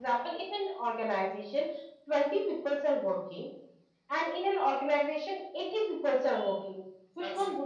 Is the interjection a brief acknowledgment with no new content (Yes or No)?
Yes